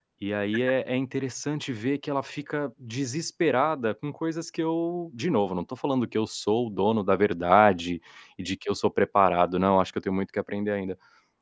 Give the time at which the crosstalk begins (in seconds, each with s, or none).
none